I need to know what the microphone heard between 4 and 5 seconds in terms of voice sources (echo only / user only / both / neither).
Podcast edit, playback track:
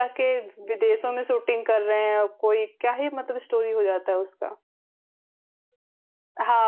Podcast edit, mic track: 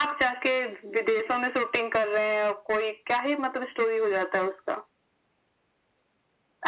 echo only